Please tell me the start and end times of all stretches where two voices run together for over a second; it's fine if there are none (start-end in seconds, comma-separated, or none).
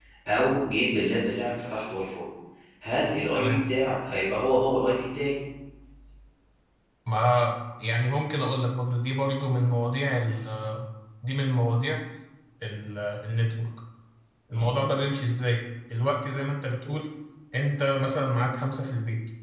none